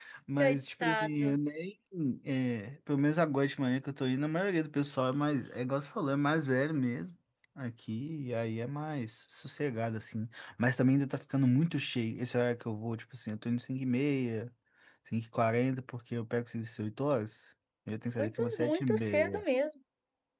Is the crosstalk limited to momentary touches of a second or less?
No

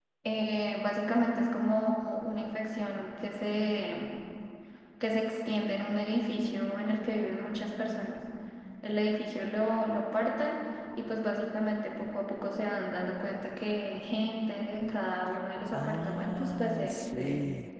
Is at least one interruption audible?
Yes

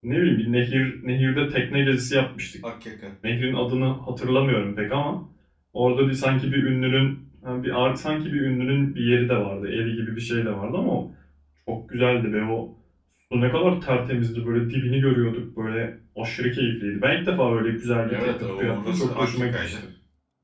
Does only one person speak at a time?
No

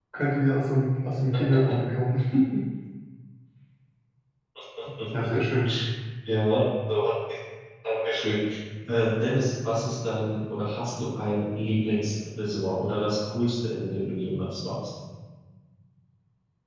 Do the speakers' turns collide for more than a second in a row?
No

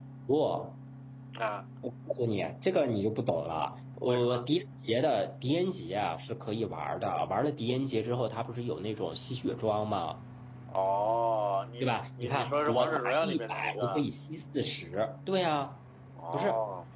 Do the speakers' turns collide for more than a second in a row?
Yes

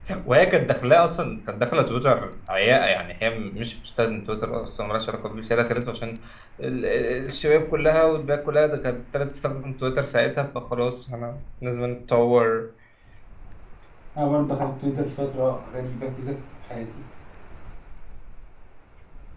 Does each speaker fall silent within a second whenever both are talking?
Yes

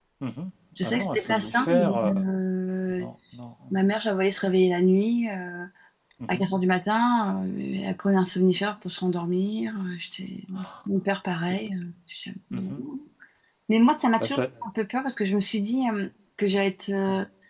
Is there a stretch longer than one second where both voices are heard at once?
Yes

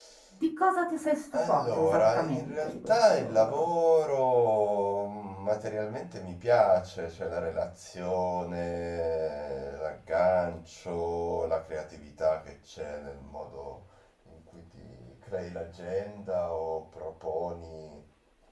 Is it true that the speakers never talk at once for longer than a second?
No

